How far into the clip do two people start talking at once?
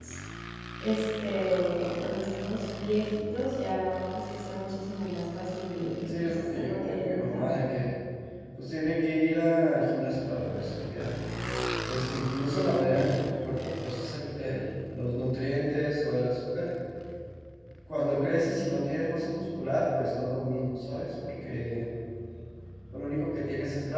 6 s

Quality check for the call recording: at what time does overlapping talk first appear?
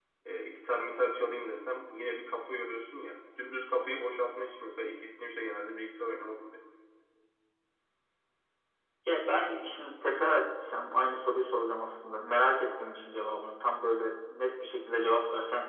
none

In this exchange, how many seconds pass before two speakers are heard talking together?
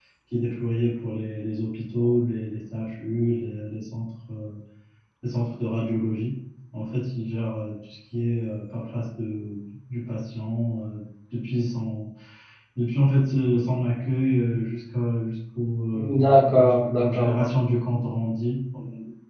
16 s

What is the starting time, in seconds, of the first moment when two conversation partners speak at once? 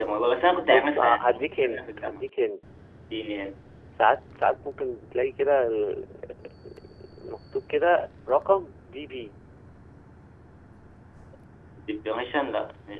1 s

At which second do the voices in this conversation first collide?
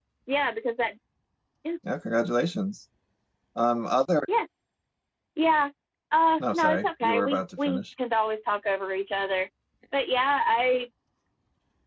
6 s

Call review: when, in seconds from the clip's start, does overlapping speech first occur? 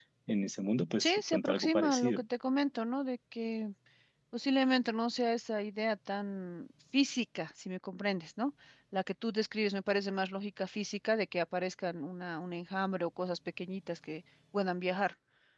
1 s

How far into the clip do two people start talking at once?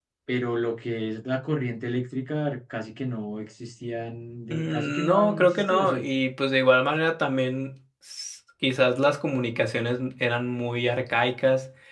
5 s

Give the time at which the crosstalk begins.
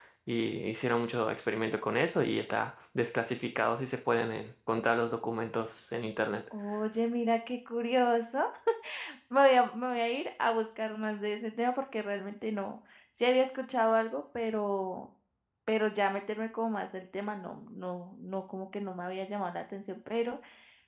none

